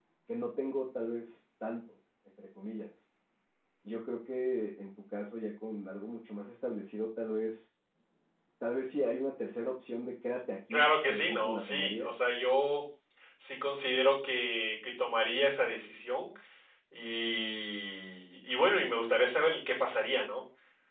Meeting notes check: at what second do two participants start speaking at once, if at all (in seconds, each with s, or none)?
10.7 s